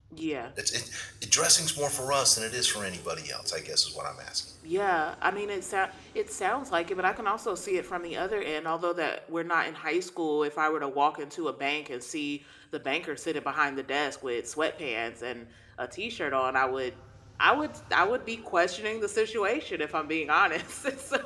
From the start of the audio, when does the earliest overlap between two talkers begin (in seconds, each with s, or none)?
none